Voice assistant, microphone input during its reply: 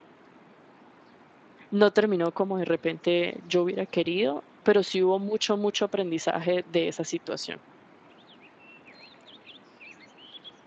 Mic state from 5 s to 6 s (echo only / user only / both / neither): user only